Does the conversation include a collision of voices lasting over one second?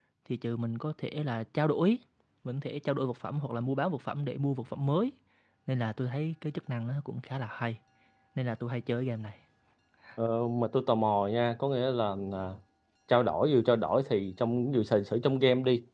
No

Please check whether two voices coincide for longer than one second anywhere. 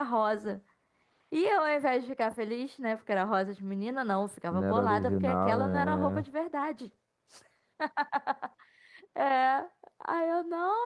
Yes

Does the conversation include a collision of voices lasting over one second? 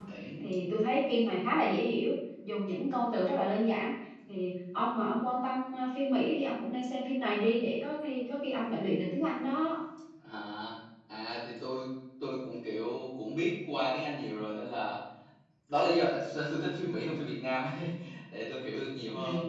No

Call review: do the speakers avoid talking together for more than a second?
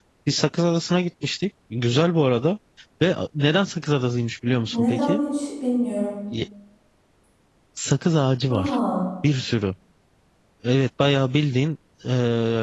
Yes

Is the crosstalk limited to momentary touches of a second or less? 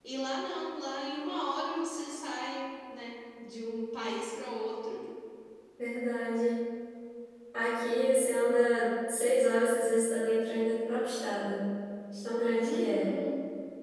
Yes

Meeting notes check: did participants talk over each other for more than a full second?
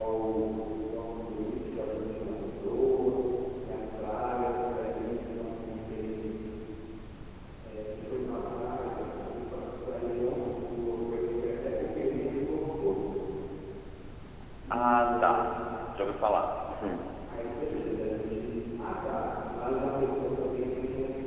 No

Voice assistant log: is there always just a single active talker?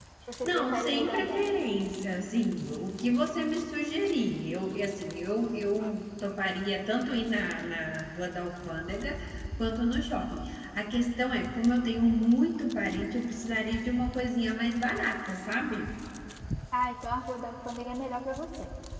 No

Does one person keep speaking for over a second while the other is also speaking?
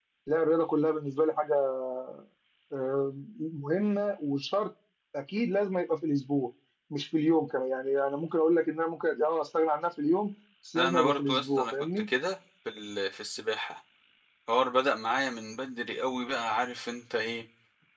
Yes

